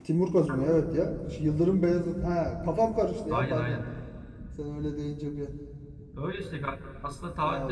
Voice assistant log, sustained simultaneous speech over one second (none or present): none